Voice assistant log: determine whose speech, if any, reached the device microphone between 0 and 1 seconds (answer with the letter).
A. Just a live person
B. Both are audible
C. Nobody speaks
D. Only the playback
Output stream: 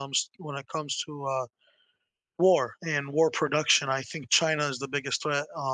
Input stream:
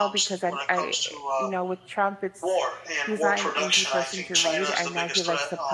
B